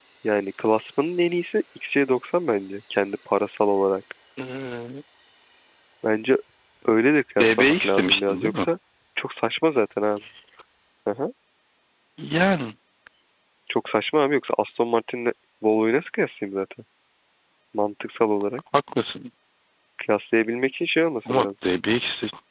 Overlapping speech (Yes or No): Yes